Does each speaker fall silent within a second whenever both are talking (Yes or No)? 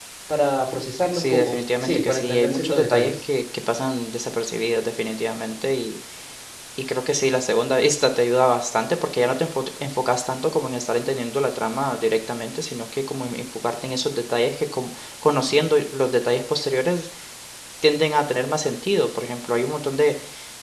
No